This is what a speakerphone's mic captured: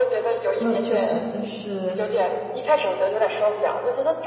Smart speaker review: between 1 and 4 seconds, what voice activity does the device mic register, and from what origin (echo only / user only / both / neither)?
both